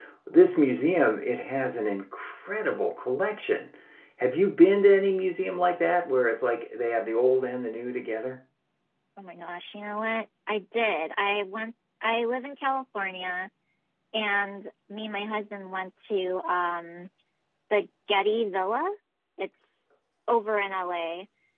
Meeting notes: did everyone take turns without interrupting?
Yes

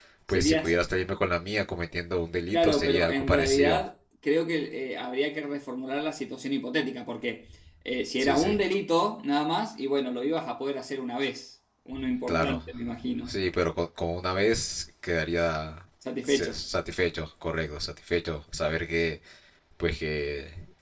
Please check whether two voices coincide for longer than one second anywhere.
Yes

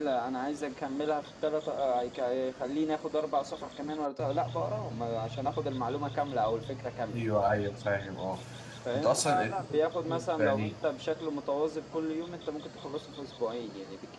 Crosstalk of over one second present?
Yes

